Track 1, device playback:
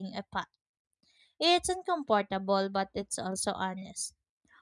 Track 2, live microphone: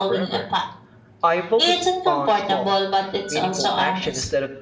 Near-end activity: present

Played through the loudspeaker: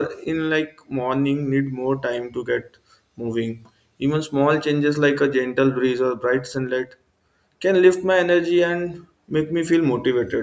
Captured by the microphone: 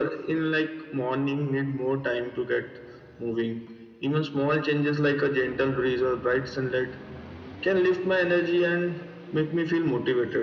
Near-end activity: none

